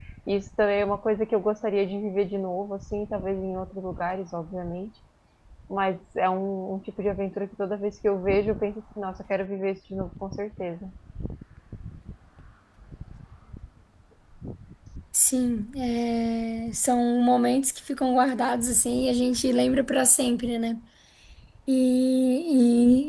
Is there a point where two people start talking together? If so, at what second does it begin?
none

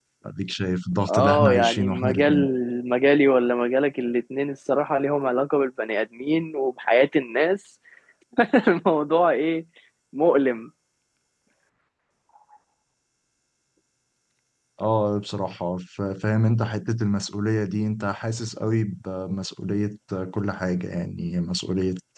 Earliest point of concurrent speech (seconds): 1.1 s

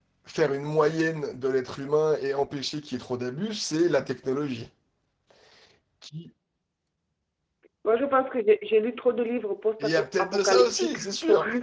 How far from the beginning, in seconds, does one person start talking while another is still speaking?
9.8 s

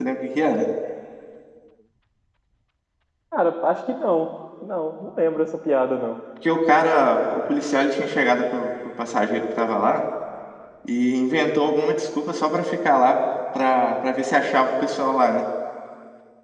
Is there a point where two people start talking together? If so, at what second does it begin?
none

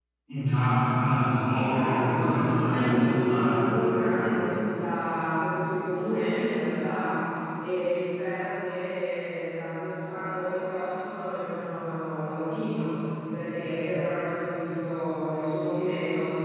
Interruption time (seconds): 1.7 s

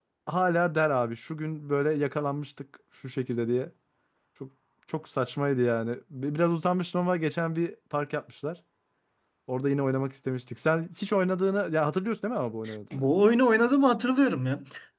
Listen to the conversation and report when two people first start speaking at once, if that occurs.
none

